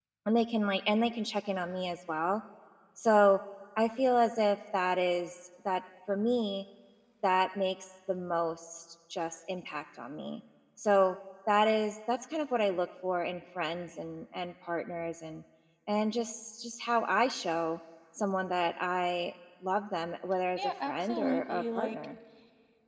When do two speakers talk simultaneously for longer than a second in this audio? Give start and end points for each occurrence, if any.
20.6-22.0

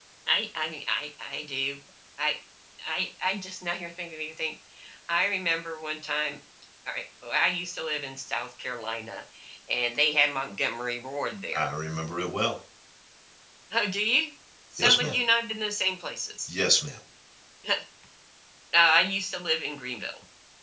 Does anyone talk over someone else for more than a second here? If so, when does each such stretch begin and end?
none

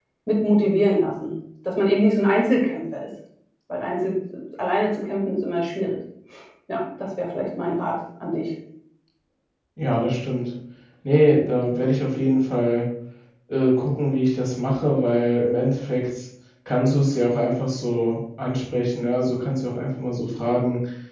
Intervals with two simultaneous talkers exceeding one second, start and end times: none

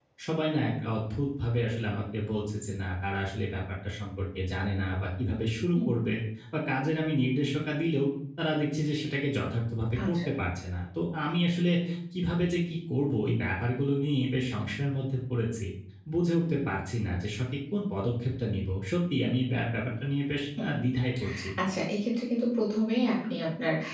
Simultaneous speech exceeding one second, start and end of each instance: none

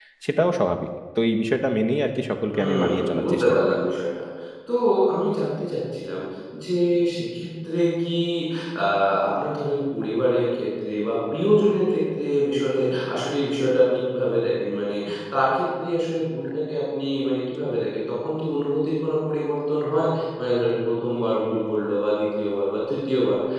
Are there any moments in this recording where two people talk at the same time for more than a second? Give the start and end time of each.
2.5-3.8

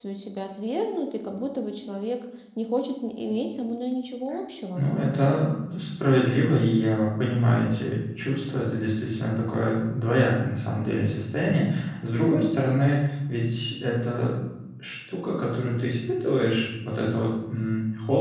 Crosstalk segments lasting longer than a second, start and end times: none

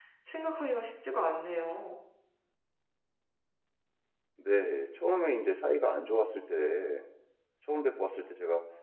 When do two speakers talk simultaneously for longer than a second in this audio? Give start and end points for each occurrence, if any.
none

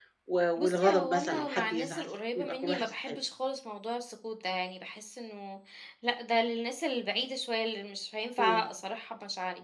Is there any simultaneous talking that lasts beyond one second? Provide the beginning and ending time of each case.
0.6-3.2

